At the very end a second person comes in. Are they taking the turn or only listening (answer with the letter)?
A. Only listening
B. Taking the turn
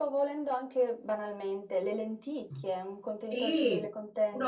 B